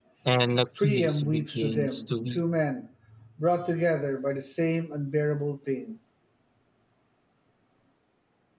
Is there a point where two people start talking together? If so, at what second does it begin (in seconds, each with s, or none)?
0.8 s